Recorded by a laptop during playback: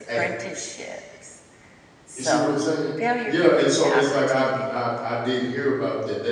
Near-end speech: present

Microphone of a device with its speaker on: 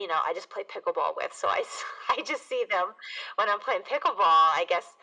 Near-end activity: none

